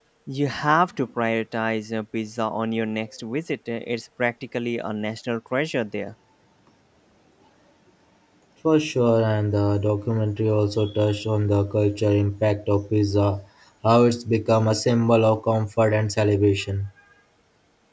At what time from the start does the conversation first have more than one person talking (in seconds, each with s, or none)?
none